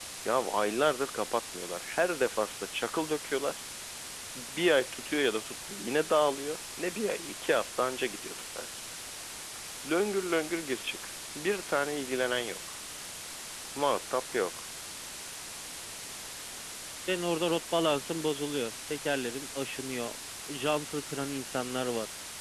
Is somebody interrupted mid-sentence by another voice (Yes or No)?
No